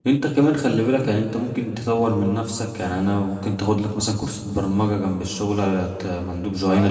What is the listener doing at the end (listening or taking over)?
taking over